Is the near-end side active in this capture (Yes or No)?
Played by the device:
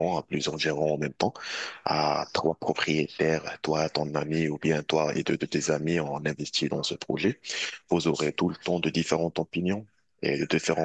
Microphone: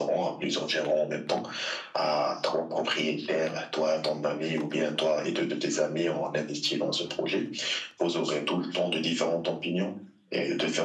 No